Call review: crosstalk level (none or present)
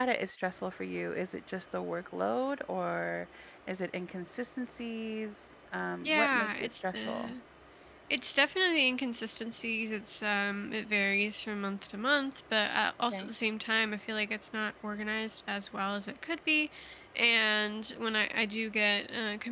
present